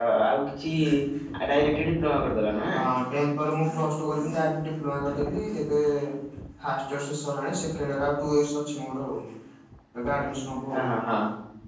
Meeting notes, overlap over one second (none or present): none